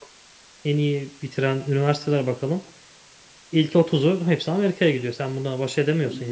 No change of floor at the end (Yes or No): No